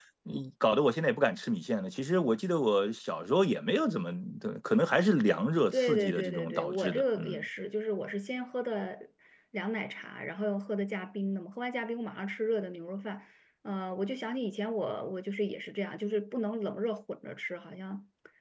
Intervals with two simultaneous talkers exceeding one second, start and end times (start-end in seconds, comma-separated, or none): 5.7-7.4